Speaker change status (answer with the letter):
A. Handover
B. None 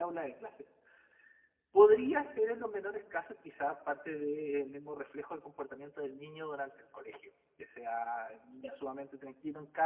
B